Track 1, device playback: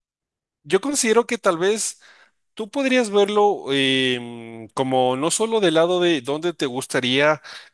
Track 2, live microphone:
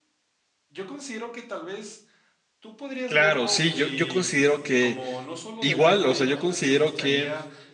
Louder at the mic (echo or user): user